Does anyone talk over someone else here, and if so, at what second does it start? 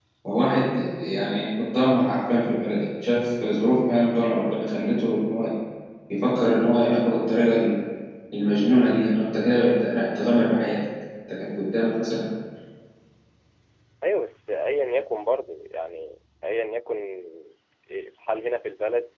none

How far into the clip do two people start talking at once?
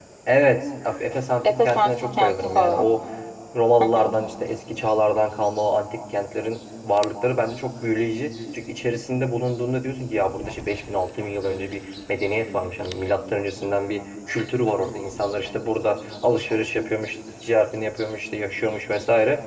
1.4 s

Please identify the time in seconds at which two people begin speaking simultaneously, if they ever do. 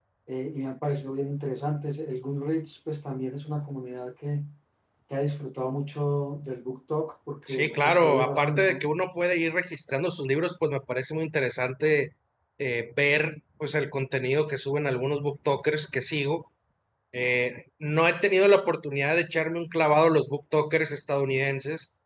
7.5 s

